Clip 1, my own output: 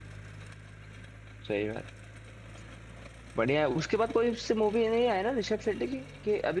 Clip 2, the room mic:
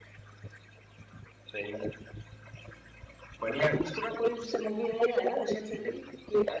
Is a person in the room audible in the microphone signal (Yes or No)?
No